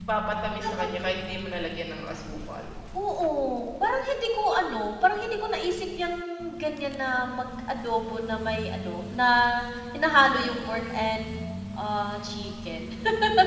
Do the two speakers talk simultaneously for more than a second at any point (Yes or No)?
No